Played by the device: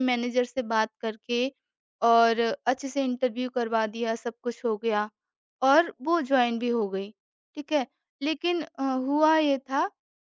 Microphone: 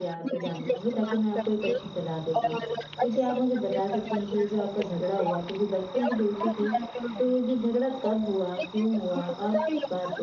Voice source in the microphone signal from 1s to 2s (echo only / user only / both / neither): both